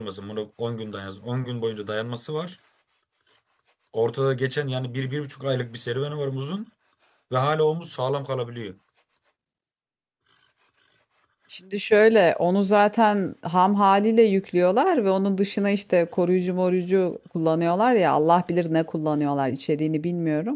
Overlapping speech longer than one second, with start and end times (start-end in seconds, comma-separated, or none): none